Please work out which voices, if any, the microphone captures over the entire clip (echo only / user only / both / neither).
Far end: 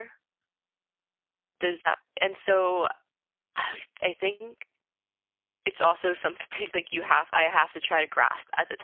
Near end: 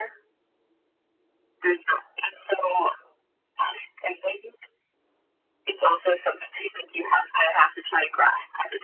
echo only